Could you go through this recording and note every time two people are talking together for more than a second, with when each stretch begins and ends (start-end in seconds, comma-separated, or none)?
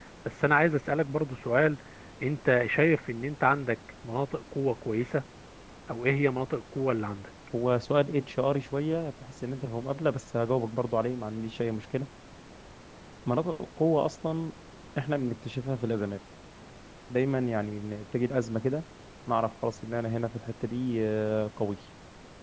none